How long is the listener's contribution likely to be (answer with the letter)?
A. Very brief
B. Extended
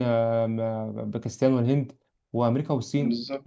A